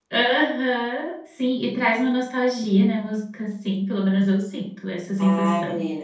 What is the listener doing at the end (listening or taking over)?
taking over